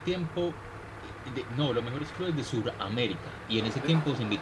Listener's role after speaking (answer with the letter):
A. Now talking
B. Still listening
B